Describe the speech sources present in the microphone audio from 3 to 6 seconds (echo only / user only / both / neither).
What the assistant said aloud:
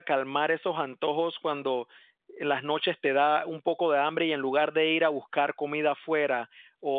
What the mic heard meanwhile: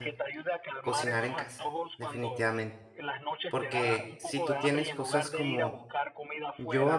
both